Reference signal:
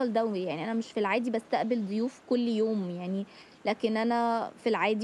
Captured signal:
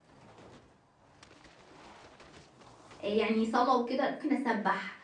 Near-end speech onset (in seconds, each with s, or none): 3.0 s